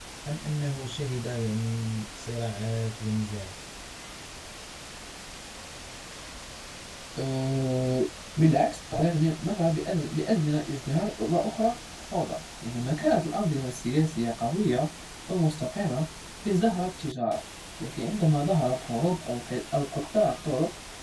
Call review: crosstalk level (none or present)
none